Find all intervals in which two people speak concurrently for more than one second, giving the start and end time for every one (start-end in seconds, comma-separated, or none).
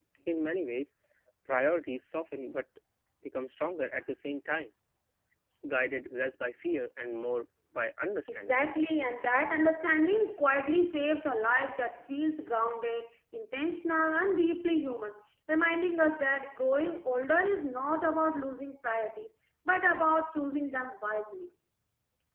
none